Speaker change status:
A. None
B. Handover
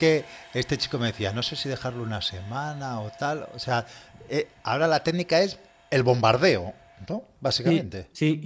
B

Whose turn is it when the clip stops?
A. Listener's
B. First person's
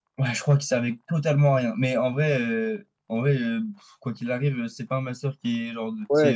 A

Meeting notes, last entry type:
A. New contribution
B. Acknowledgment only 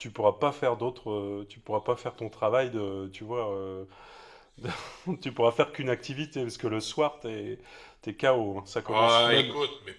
A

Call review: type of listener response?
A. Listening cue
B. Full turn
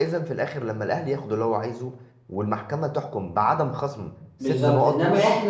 B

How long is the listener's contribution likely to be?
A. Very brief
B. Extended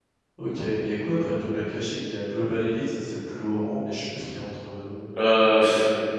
B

